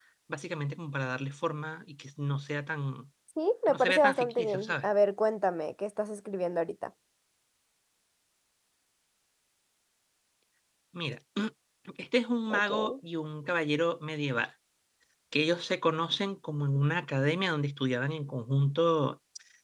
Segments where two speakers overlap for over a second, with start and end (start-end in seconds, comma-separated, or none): 3.7-4.9